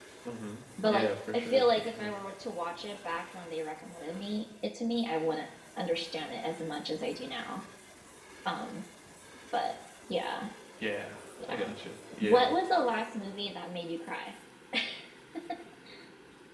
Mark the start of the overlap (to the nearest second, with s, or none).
1 s